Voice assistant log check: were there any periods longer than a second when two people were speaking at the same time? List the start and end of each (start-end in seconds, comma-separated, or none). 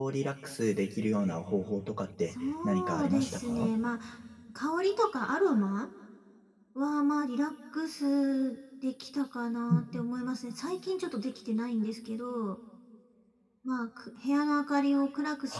2.3-3.7